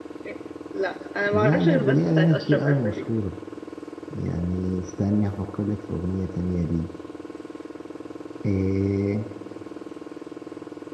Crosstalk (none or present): present